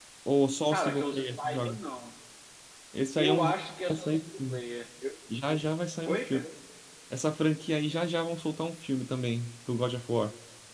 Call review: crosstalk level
present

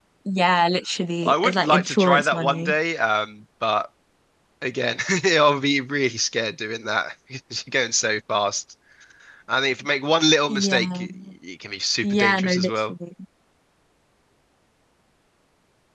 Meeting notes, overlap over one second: present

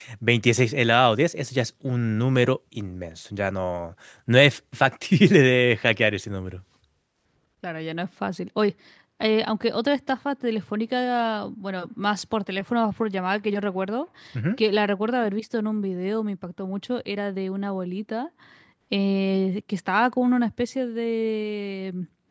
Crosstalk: none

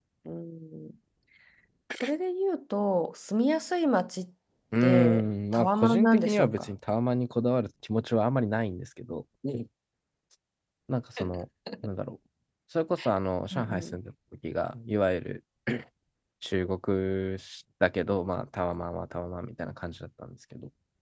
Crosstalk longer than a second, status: present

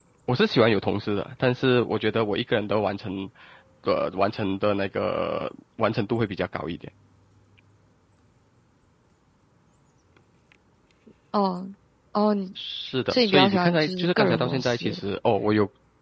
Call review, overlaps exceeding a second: present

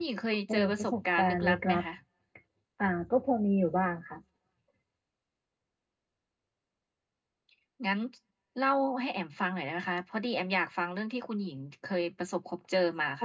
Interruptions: present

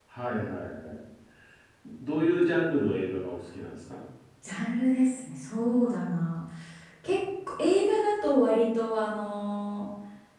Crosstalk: none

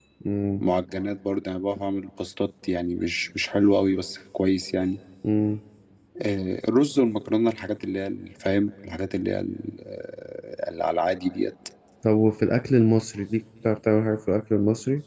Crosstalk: none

